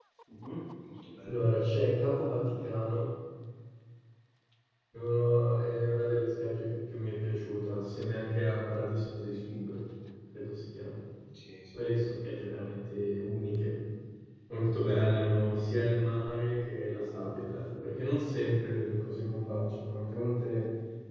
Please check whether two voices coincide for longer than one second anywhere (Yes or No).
No